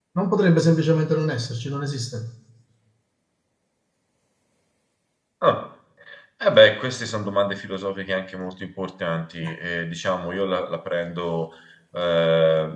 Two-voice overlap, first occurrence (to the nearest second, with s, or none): none